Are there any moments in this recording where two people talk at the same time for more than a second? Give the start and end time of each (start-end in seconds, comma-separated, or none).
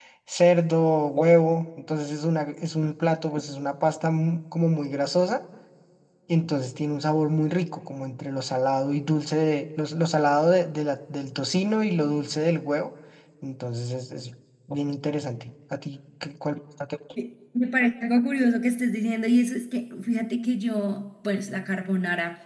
none